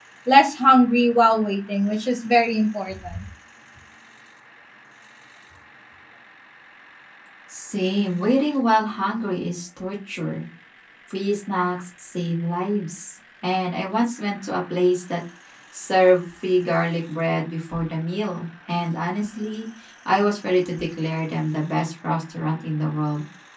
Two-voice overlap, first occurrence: none

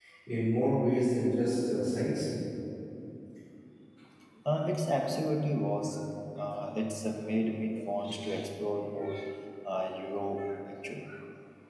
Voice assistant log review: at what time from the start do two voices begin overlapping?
none

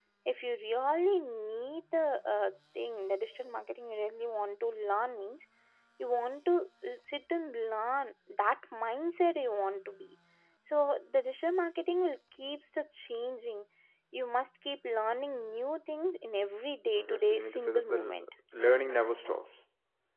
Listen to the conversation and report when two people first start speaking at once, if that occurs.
16.9 s

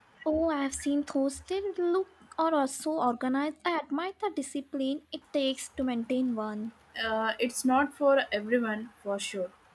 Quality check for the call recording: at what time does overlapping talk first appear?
none

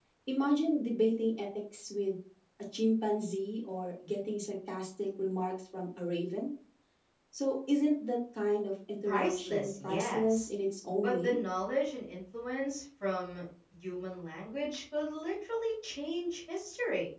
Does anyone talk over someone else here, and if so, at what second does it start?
9.1 s

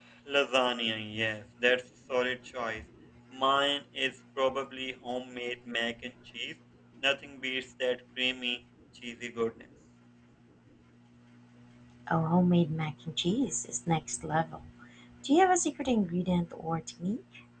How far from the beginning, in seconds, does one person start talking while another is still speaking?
none

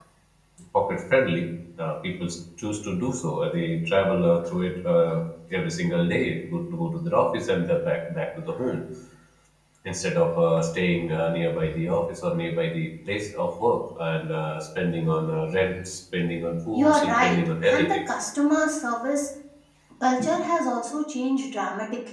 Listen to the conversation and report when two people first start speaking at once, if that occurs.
16.7 s

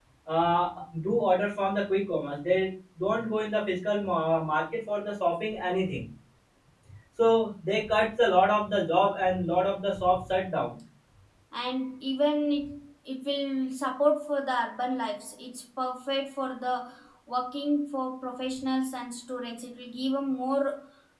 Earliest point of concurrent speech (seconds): none

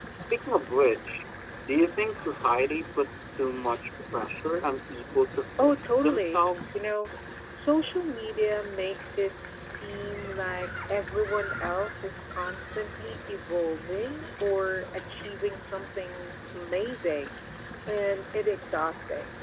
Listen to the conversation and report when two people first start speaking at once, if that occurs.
5.6 s

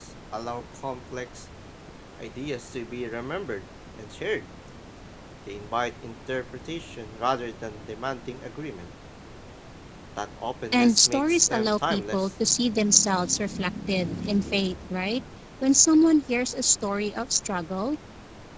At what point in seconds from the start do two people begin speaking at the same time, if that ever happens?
10.7 s

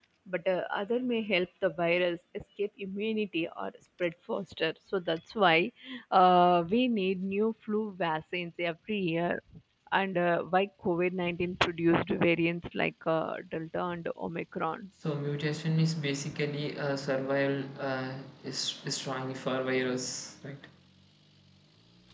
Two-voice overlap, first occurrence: none

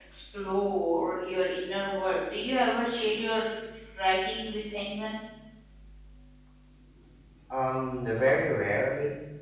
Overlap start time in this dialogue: none

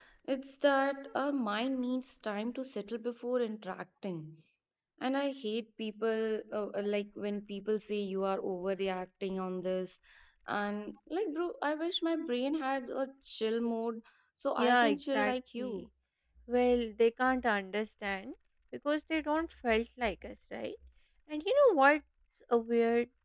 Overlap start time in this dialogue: 14.6 s

